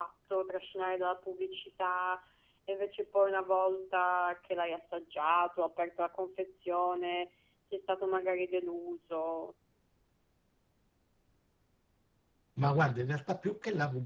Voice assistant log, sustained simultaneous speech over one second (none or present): none